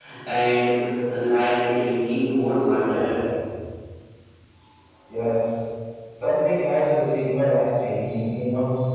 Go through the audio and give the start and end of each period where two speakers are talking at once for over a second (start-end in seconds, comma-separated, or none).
none